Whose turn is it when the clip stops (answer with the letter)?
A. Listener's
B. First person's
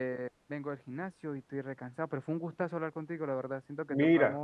B